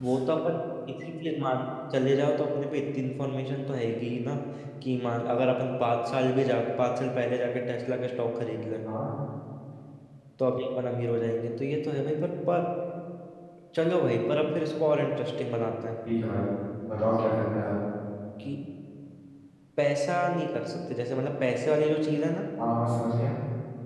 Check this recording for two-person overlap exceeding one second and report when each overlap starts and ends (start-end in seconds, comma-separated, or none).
none